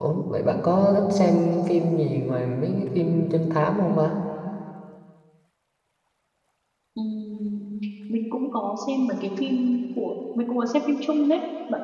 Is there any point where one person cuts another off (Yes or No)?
No